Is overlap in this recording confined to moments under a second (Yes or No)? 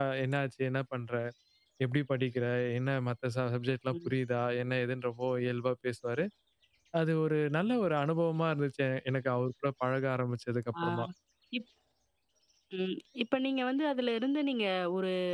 Yes